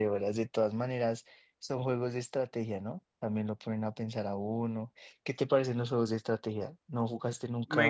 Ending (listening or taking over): taking over